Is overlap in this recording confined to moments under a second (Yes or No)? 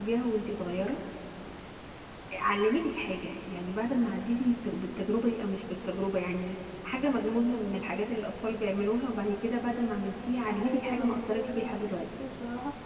No